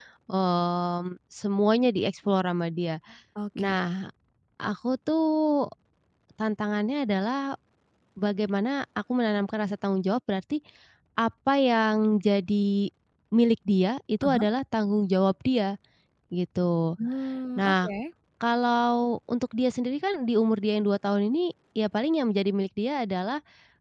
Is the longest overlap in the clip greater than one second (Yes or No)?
No